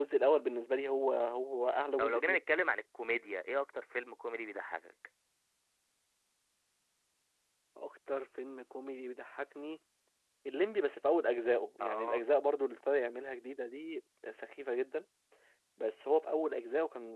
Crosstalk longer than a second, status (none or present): none